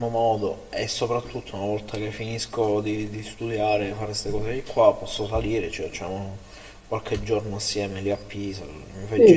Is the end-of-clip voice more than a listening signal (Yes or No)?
Yes